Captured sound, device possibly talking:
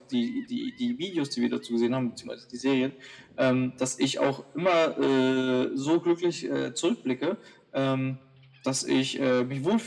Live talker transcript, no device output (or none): none